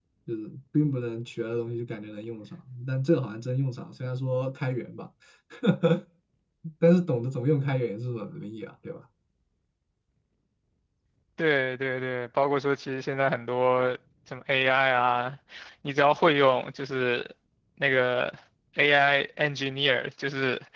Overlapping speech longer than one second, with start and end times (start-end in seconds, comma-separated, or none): none